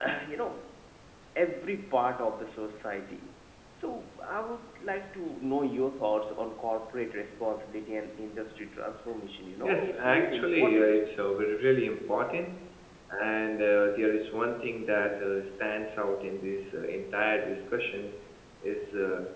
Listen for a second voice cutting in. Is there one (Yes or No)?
Yes